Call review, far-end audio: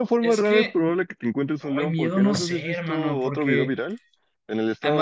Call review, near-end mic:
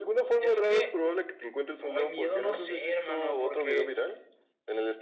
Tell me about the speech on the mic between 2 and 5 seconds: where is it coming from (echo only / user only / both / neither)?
echo only